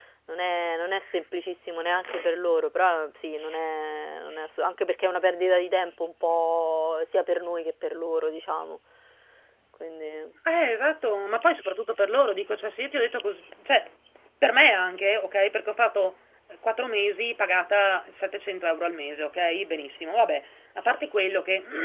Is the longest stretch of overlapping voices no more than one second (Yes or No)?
Yes